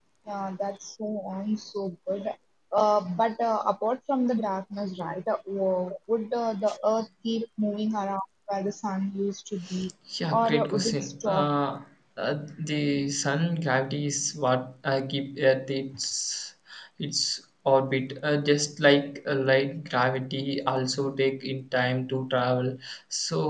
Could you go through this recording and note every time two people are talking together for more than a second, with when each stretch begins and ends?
10.3-11.5

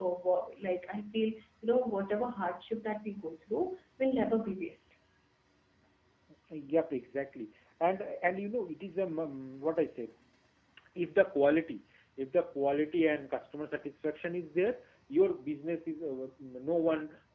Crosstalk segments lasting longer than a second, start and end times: none

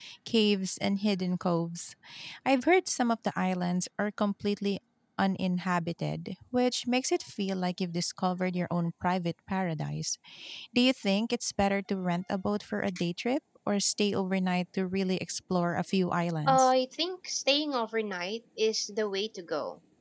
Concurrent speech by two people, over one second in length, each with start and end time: none

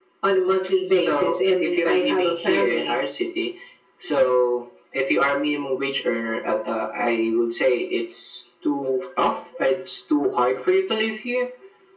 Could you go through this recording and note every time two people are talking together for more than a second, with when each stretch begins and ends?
1.0-3.0

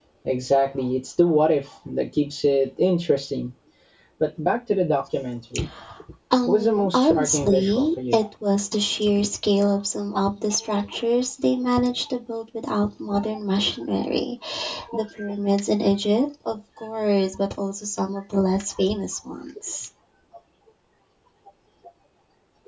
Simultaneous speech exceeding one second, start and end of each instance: 6.4-8.2

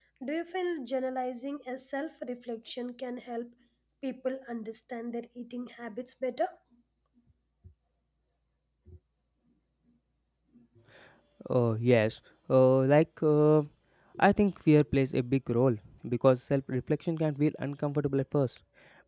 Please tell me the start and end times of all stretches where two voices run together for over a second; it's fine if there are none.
none

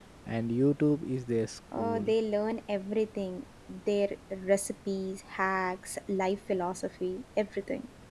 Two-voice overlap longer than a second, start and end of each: none

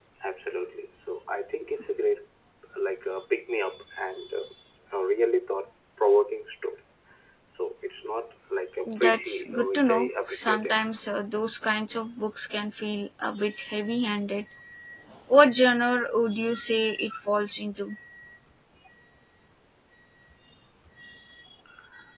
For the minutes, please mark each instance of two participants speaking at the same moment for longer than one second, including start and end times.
8.8-10.8

